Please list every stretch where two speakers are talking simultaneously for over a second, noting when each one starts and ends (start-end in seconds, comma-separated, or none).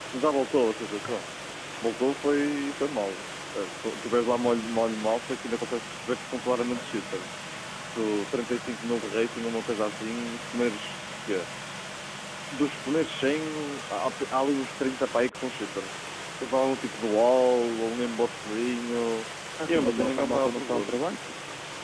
19.7-21.0